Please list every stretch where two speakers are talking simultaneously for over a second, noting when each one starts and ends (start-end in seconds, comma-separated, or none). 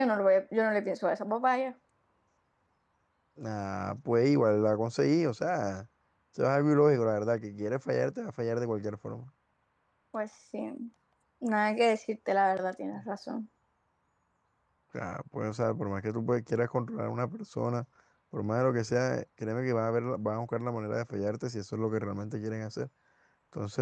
none